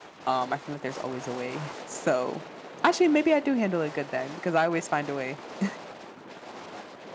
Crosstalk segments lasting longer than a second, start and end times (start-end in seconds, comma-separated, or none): none